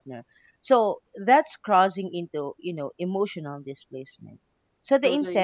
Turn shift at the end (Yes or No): No